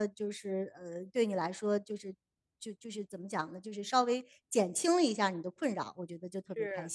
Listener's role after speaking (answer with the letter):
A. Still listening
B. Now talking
B